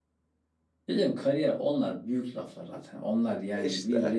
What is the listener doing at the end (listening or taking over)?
listening